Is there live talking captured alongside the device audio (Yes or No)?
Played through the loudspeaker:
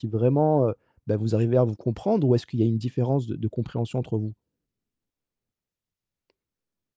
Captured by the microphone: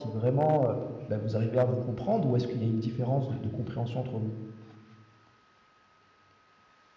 No